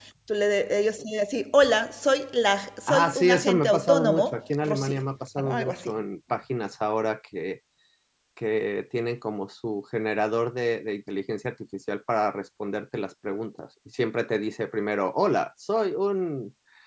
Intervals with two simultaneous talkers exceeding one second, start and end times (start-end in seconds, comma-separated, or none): 2.9-5.0